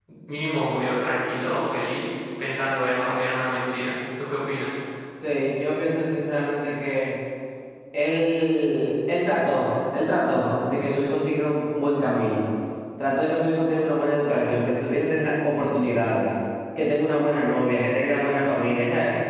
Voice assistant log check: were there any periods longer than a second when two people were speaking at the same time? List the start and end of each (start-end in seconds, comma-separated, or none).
none